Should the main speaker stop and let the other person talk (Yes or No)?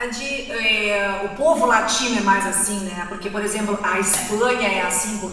No